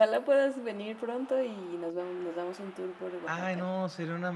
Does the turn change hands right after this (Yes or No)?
Yes